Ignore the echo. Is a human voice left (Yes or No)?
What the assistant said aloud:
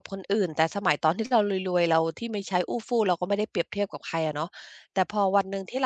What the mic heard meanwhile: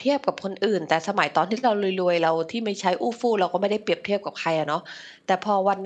No